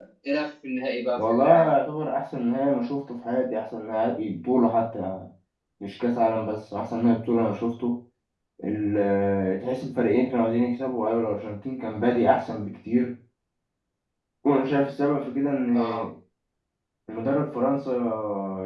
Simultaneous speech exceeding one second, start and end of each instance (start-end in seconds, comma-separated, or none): none